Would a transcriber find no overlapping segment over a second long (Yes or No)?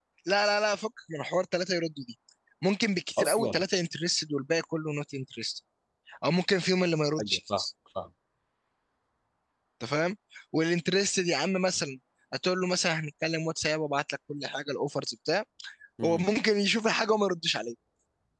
Yes